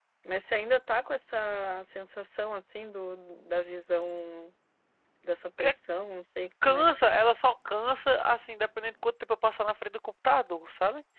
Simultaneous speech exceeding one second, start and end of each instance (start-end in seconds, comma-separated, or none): none